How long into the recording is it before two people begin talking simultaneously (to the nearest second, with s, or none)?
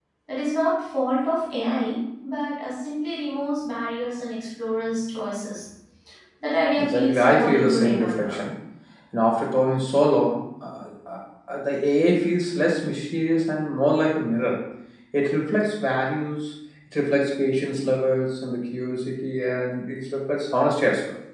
7 s